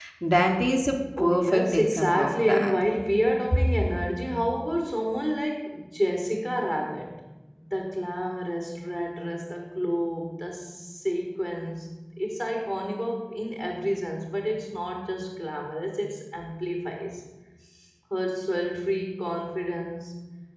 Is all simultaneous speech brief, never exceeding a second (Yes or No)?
No